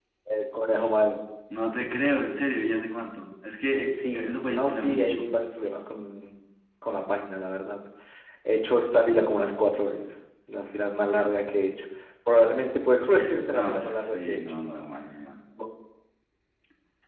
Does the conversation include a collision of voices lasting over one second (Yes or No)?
Yes